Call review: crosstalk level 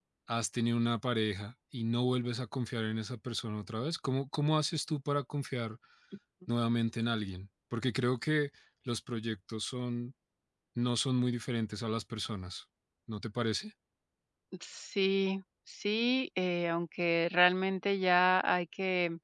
none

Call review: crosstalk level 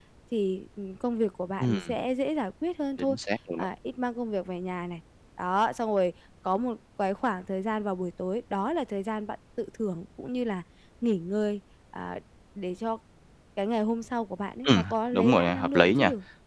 present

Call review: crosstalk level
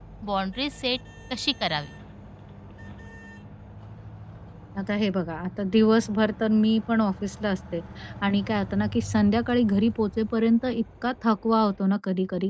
none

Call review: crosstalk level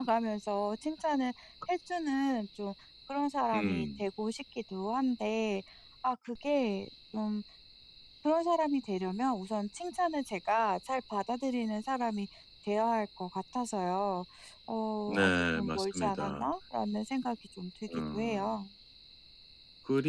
present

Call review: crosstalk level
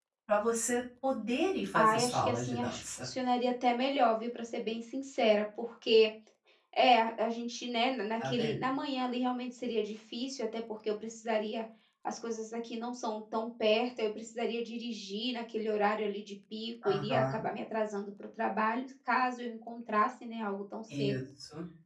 present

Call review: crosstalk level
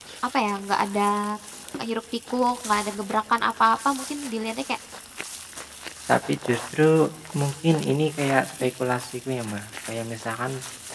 none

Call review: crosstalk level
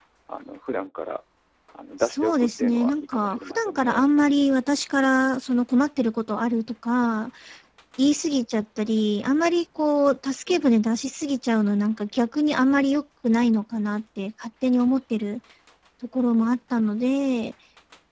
present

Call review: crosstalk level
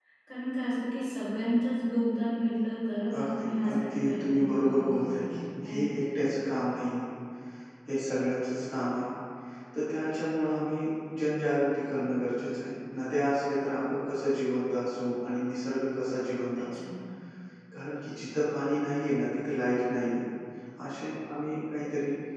present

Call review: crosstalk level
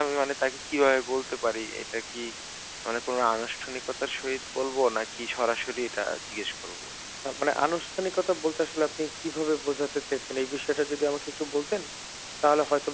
none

